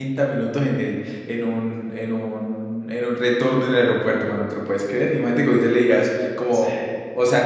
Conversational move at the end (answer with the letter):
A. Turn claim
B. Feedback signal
B